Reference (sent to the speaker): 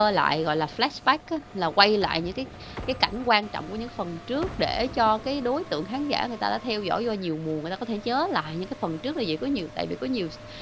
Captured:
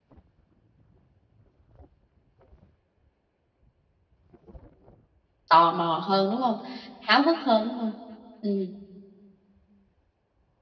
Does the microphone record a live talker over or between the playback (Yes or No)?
Yes